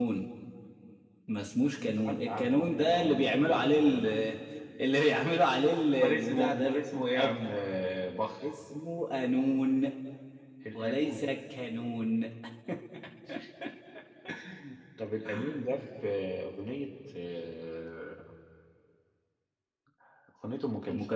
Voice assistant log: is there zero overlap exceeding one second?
No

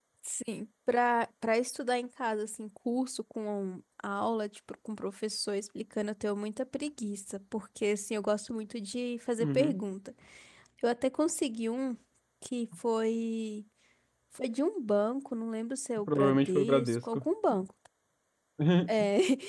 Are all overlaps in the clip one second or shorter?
No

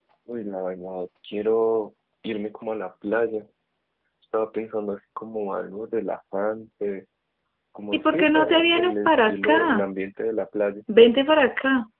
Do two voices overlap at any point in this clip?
Yes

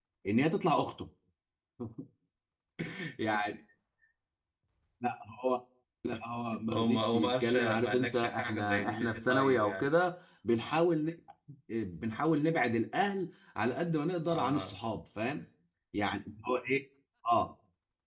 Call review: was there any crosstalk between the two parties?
Yes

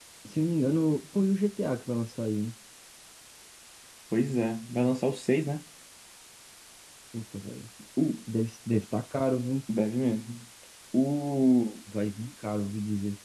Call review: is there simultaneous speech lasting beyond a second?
No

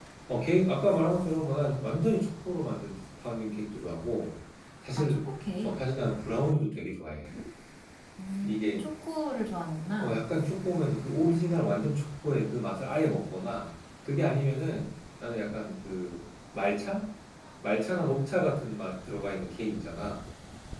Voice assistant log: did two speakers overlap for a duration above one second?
No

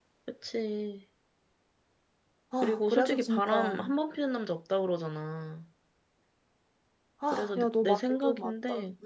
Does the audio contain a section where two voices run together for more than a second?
Yes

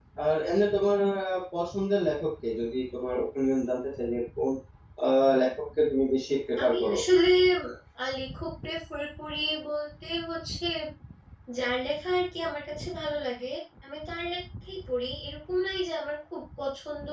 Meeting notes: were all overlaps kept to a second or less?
Yes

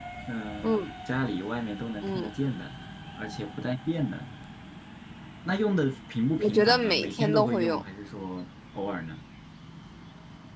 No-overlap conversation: No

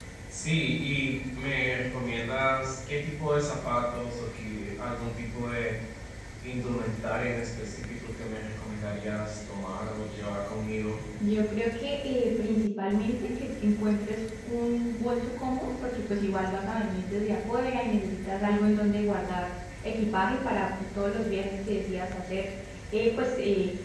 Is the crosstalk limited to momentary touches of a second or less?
Yes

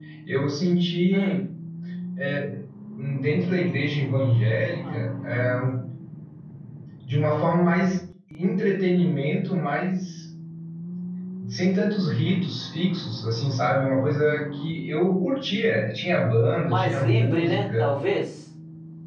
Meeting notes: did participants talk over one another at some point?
Yes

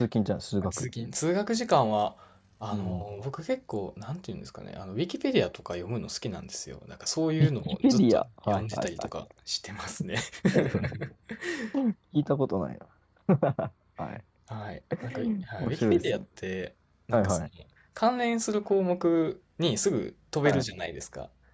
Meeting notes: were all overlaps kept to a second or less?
No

